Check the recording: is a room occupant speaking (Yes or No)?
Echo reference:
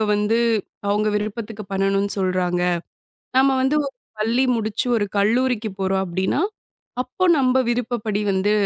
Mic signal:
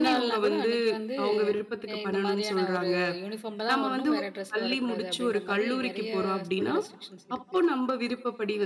Yes